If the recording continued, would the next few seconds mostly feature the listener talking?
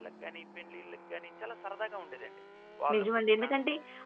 Yes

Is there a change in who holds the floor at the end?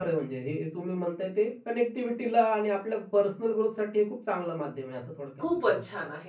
Yes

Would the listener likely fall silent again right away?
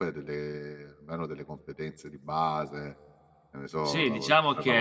No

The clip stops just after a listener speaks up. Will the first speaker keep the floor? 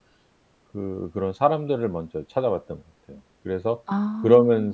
Yes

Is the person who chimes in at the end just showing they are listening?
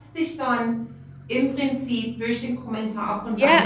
No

